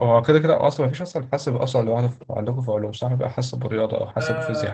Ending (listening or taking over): taking over